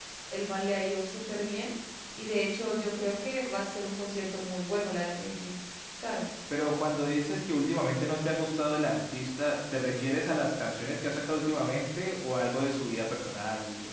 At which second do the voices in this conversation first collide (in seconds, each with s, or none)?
none